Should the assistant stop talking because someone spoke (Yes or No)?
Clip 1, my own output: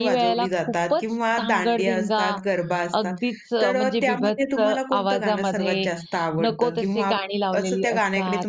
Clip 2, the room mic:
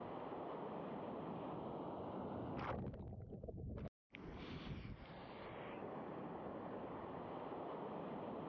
No